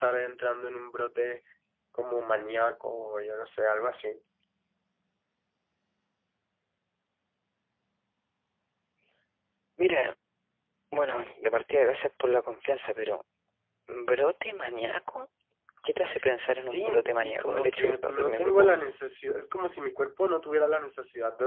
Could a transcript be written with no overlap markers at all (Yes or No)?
No